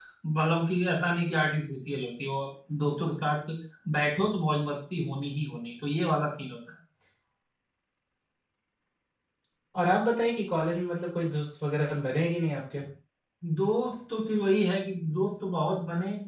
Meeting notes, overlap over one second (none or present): none